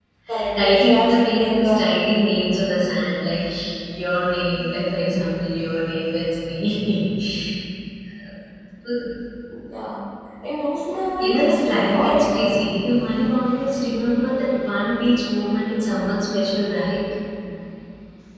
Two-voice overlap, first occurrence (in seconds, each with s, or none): 0.6 s